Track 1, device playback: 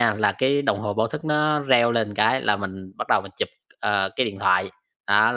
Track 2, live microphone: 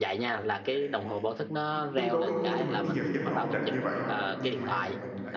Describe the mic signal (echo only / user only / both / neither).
both